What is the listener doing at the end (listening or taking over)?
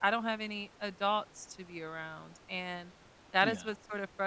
listening